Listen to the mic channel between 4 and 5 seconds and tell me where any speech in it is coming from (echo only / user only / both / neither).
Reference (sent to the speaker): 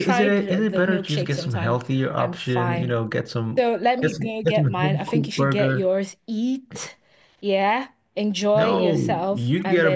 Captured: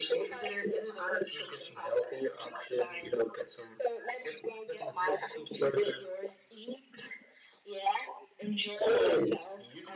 echo only